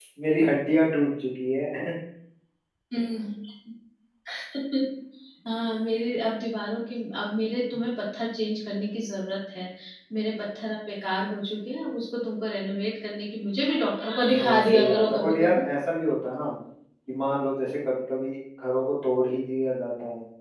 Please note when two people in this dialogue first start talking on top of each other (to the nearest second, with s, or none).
14 s